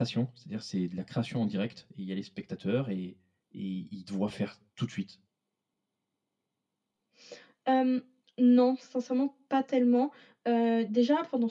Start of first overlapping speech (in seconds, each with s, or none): none